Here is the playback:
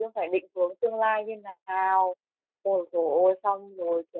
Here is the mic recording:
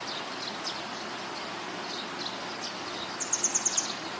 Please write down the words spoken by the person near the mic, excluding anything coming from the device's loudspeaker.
none

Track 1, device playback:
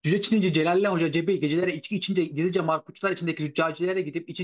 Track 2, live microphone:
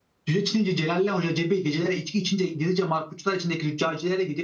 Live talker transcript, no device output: none

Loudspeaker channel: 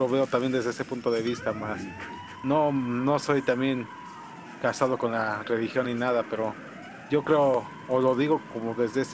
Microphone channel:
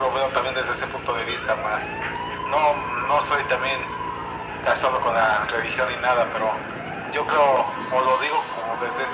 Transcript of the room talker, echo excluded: none

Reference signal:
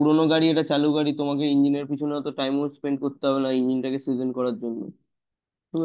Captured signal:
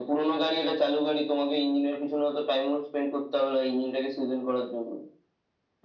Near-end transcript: none

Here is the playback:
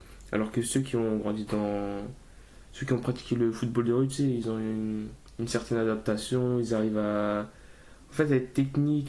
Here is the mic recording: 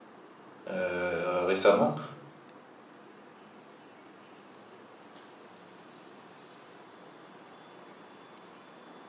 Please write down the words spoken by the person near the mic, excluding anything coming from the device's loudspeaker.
euh, récemment.

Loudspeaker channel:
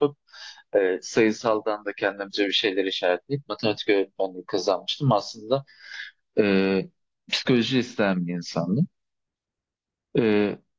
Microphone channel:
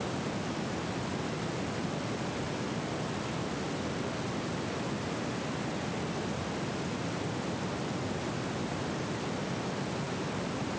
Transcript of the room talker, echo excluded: none

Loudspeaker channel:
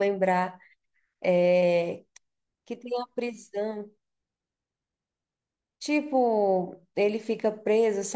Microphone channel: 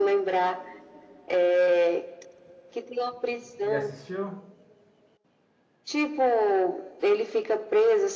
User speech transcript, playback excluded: Você já assistiu?

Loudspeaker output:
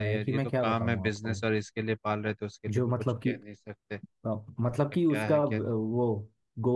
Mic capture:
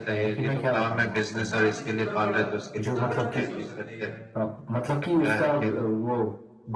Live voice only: इतना इतना बड़ा इतना बड़ा कैसे हो सकता है यार

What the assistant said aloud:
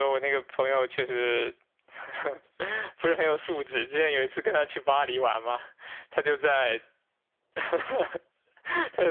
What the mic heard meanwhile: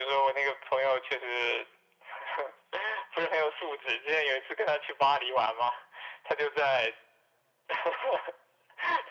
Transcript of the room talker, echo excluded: none

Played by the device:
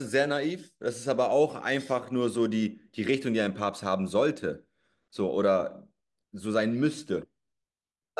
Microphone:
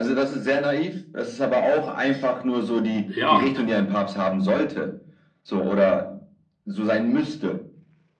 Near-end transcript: ja.

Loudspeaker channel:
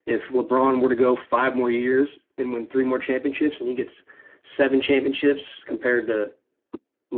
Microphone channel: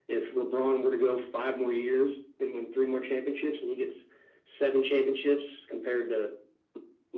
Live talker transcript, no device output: none

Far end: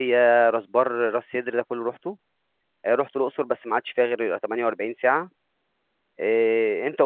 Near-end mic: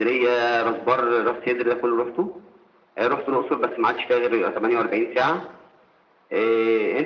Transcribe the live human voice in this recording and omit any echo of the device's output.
none

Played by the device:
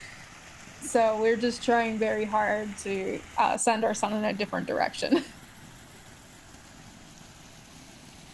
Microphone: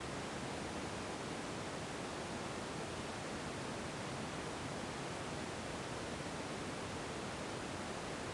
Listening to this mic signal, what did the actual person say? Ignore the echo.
none

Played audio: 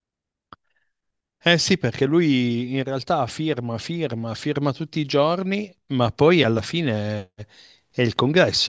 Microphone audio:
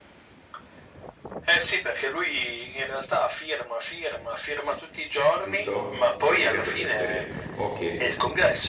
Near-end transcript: giusto? Non sto dicendo fesserie. Ok.

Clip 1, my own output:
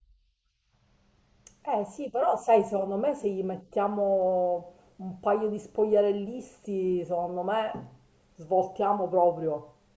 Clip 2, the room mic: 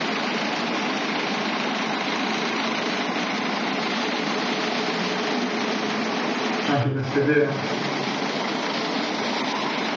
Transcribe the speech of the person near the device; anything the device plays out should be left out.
Anche questo è vero.

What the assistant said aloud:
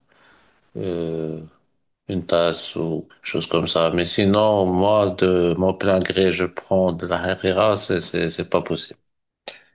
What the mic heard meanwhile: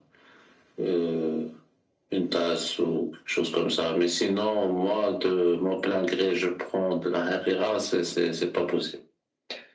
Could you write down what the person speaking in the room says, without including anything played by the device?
none

